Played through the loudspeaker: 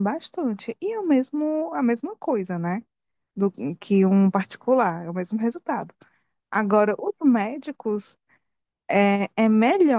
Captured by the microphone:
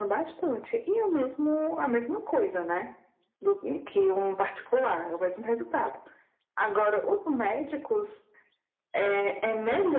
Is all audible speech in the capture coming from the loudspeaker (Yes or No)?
Yes